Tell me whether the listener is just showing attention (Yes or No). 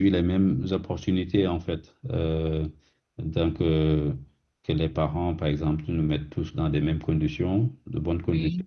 Yes